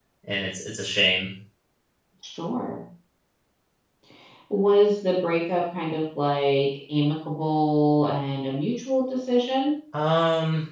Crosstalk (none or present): none